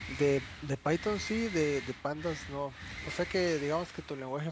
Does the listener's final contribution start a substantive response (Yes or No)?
No